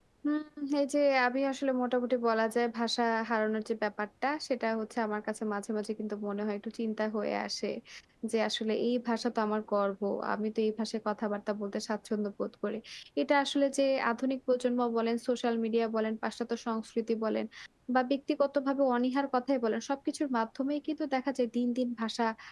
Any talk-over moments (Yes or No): No